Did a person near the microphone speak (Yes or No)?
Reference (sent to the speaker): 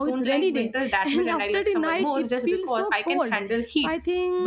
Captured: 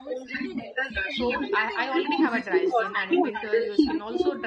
Yes